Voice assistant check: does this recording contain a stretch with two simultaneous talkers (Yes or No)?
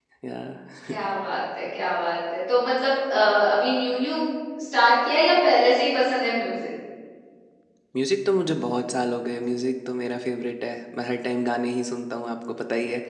No